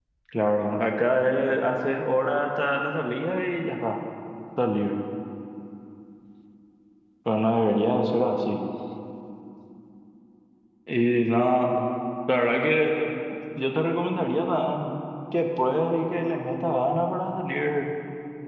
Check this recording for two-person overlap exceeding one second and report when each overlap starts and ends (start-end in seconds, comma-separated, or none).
none